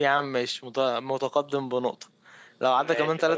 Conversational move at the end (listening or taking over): listening